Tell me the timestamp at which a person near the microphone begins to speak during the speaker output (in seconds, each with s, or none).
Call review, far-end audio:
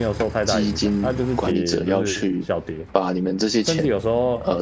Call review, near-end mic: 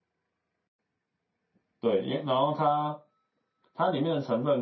1.8 s